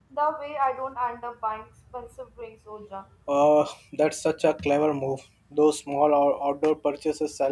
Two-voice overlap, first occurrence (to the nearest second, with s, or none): none